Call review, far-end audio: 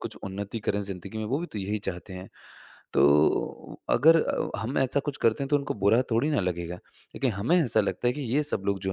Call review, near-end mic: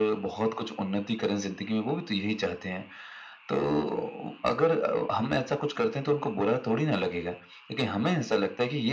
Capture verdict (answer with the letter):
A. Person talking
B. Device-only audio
B